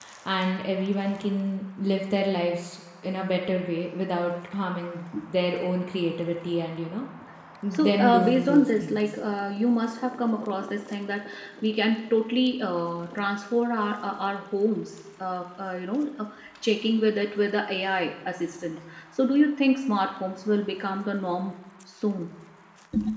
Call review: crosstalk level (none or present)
present